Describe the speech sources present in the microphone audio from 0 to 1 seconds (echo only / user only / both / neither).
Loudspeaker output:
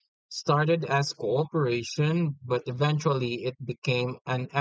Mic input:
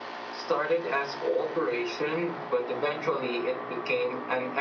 echo only